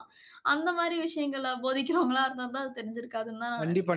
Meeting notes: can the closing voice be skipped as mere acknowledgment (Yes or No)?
No